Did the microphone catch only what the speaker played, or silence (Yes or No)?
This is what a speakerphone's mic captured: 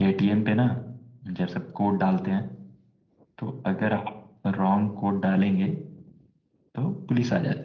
No